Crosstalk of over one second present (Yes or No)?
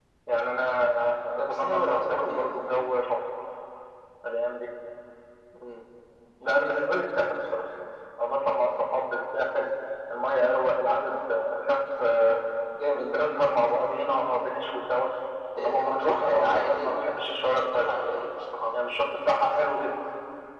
Yes